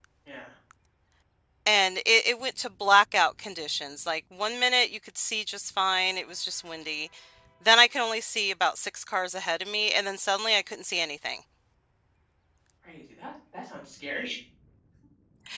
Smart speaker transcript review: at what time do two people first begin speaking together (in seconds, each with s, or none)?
none